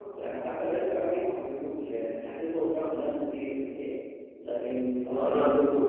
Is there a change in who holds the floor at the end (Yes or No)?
Yes